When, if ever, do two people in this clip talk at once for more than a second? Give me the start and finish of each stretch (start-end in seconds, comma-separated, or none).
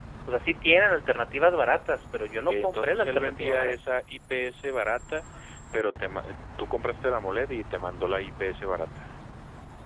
2.5-3.7